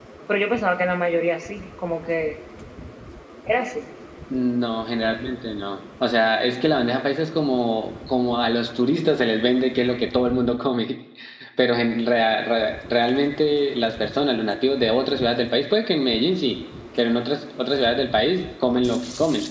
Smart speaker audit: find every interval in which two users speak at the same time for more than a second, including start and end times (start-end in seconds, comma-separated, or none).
none